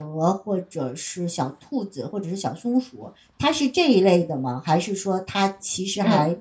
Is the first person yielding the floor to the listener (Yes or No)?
No